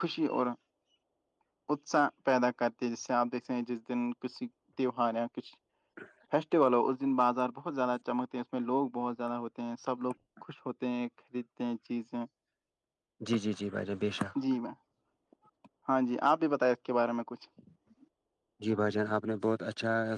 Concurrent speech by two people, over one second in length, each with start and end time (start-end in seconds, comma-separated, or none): none